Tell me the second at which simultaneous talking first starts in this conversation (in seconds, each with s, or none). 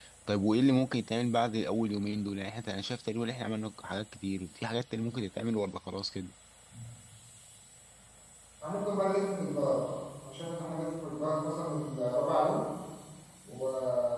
none